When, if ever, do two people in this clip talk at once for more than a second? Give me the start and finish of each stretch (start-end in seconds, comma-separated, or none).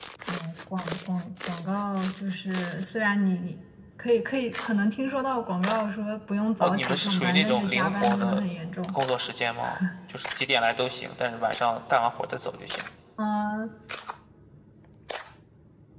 6.6-8.4